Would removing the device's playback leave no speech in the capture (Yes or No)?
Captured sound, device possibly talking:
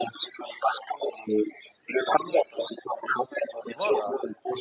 No